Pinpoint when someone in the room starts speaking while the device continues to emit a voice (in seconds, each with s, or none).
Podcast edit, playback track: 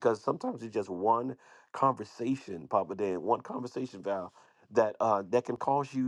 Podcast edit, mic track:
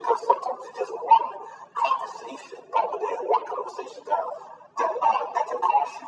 none